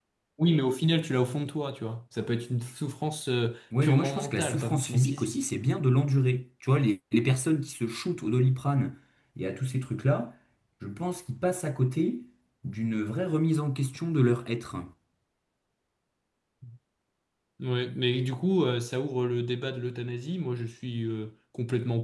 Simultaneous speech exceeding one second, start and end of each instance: 3.8-5.4

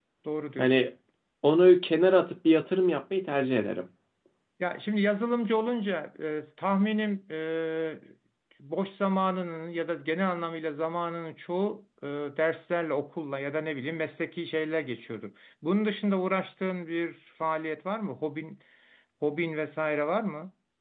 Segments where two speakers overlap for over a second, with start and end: none

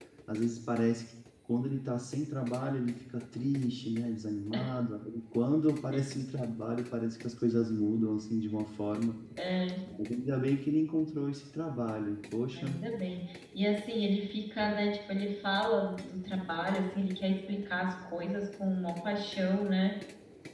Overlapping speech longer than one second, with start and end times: none

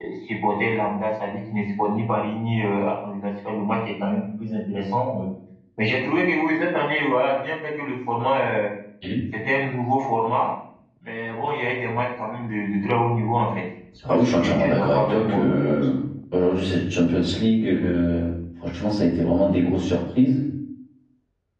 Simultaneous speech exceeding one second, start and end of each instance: 14.1-15.9

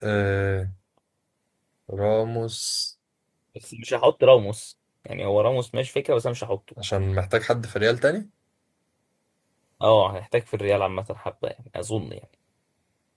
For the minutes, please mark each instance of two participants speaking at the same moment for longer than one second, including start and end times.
none

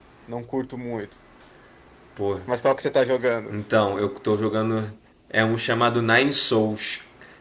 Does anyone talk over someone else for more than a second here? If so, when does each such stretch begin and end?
none

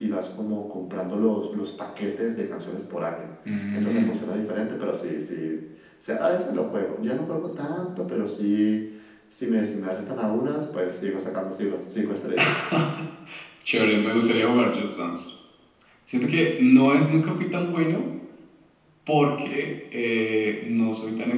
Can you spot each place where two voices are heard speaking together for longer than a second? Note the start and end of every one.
none

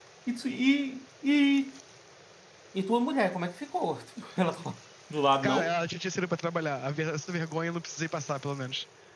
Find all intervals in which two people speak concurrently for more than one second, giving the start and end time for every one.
none

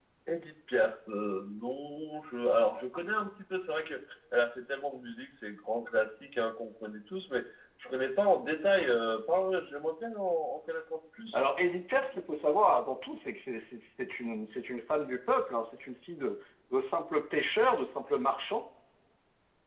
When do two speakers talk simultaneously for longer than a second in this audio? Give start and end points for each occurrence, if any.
none

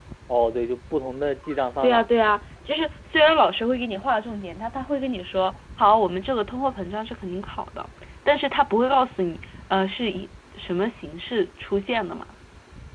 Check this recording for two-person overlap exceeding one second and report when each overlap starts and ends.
none

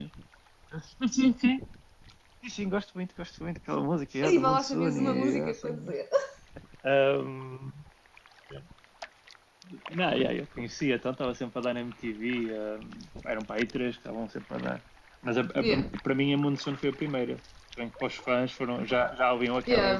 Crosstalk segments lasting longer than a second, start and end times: 4.2-5.9

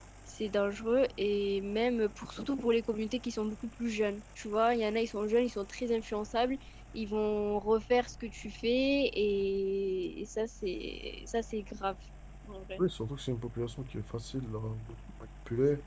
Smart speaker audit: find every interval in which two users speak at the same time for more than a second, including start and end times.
none

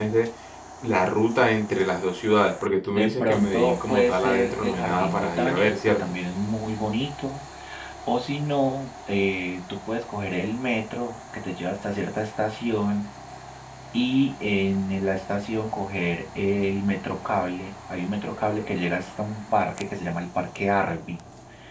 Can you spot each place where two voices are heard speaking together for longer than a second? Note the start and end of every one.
2.9-6.0

